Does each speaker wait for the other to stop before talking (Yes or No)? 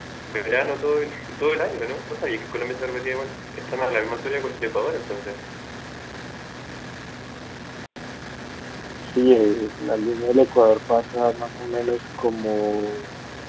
Yes